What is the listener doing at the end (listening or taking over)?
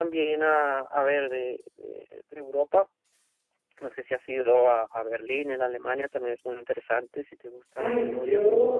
taking over